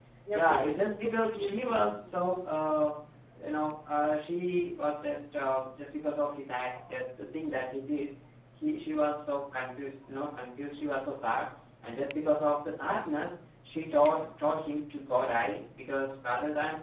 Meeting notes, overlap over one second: present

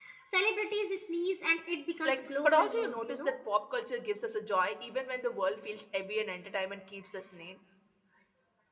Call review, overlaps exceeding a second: present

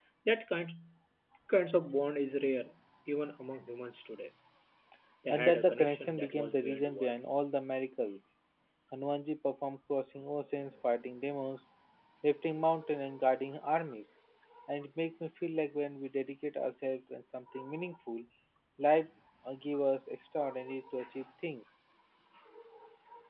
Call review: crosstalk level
present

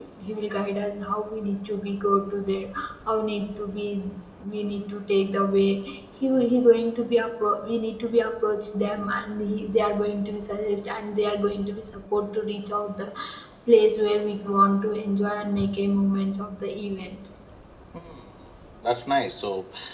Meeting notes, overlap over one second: none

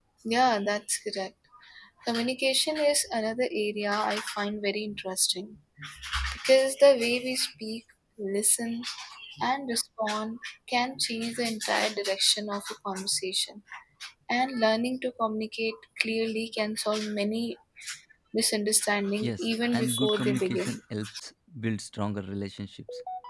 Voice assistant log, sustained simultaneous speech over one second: present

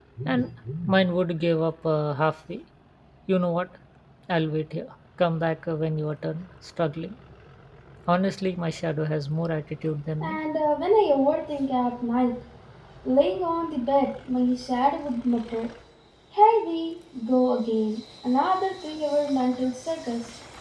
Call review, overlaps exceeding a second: none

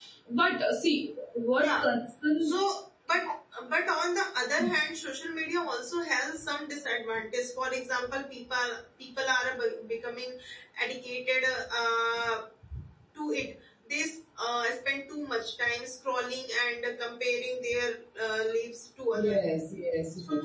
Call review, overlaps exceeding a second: none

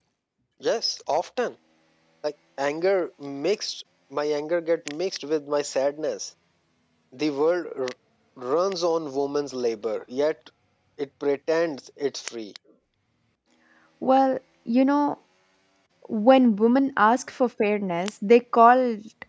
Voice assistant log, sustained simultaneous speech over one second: none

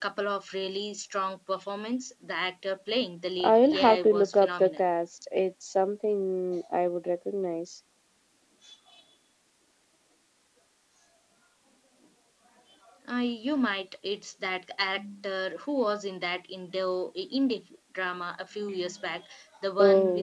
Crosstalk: present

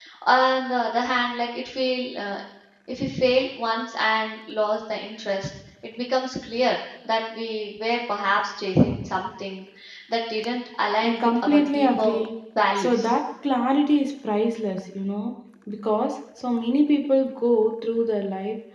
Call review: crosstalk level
present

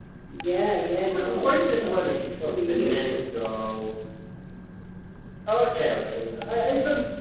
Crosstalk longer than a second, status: present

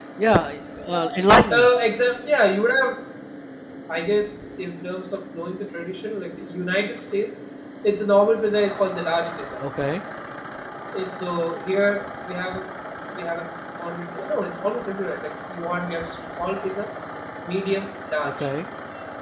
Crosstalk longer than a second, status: none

